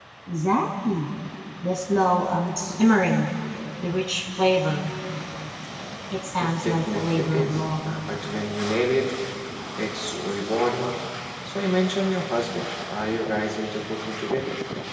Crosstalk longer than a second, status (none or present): present